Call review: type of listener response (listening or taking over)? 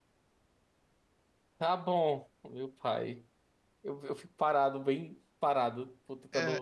taking over